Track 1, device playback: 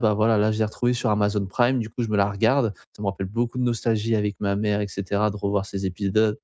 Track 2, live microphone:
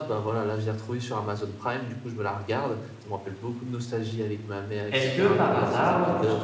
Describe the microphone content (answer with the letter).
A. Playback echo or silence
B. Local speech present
B